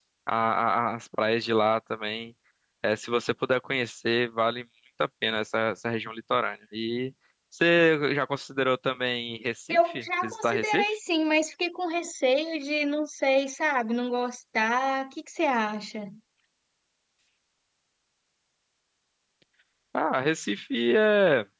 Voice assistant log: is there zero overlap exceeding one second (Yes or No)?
No